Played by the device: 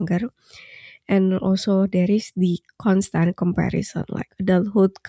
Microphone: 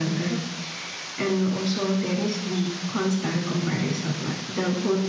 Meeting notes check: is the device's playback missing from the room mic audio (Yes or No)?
No